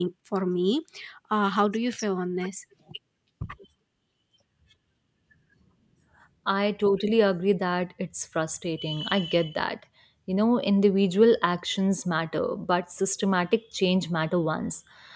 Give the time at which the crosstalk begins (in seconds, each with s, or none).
none